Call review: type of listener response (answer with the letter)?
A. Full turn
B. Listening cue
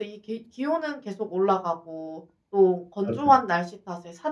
B